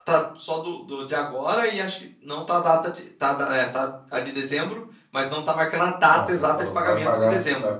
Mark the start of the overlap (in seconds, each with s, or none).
6.1 s